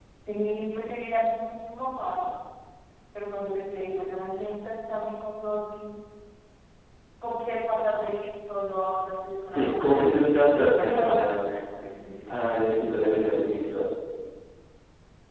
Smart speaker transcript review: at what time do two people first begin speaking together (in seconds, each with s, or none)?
9.5 s